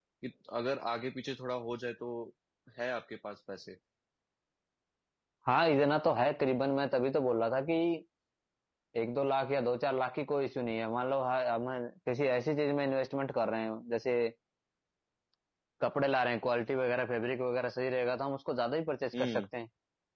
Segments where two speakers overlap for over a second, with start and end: none

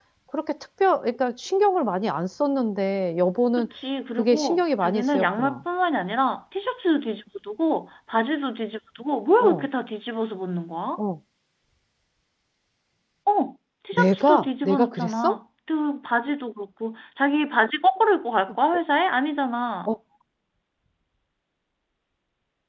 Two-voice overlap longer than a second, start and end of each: 4.2-5.6, 13.9-15.4

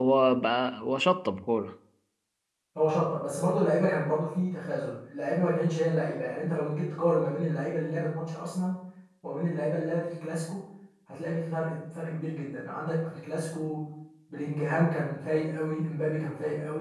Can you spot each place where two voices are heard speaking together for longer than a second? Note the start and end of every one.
none

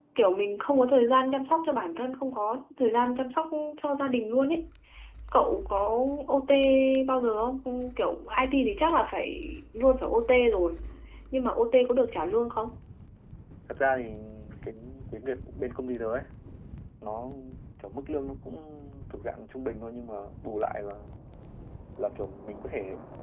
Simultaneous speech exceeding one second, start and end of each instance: none

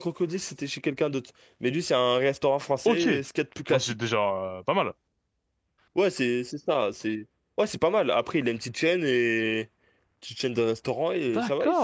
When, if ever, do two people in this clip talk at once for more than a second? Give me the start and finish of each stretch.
none

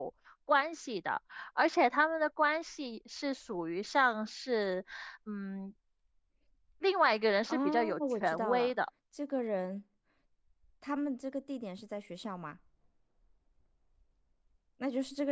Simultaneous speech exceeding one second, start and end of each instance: 7.5-8.7

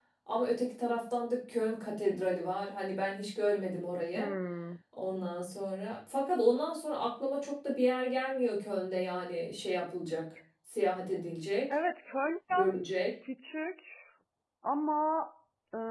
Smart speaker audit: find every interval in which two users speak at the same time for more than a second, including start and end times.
none

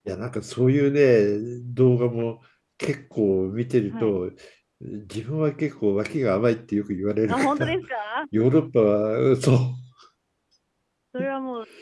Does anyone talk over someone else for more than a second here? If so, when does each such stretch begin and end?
none

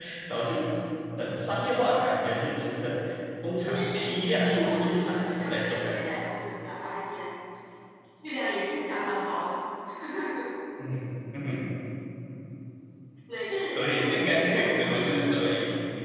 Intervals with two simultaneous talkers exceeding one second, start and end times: 3.6-6.2, 13.8-15.1

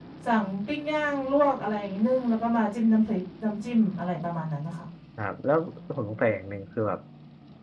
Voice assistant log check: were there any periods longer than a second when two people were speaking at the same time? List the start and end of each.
none

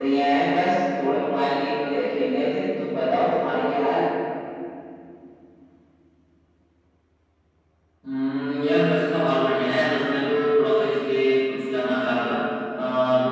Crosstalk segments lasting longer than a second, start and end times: none

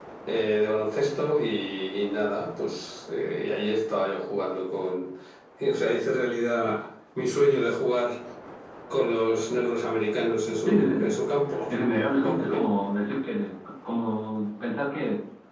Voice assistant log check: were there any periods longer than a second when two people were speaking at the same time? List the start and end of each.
none

